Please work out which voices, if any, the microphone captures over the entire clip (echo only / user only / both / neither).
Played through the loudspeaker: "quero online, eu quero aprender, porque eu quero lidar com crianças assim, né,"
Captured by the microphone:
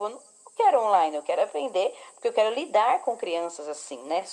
echo only